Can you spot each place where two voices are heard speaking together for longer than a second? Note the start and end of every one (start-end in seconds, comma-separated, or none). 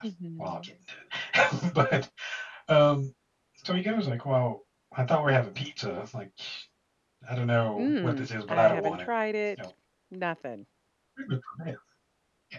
7.8-9.1